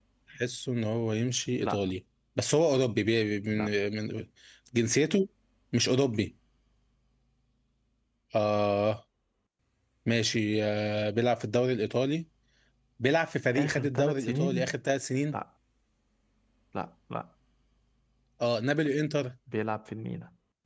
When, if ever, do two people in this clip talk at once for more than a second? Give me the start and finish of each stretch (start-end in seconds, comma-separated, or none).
13.5-14.8